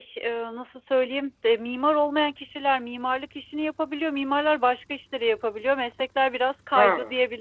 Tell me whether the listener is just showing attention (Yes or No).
No